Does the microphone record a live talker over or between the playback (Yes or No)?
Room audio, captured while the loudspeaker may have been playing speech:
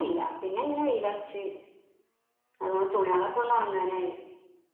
No